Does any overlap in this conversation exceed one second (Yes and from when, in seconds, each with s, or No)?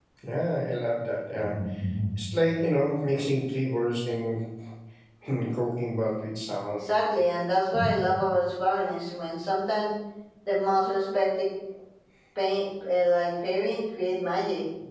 No